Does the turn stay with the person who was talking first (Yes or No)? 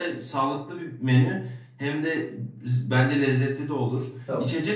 Yes